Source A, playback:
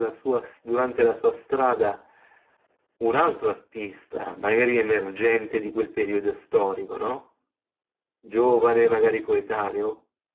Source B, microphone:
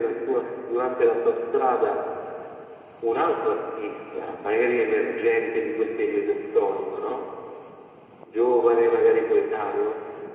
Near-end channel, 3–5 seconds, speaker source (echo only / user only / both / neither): echo only